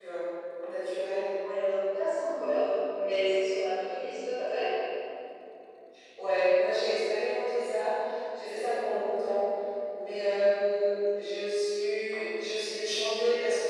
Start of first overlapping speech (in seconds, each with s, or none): none